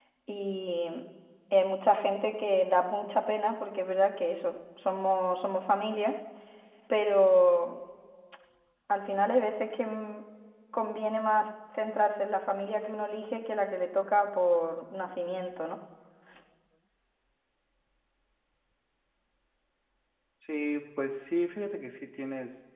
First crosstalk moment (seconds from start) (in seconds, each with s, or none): none